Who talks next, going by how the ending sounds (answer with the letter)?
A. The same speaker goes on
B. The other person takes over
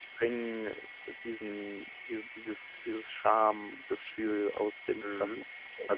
B